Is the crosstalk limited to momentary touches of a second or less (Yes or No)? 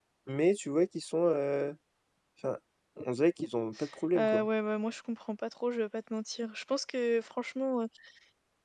Yes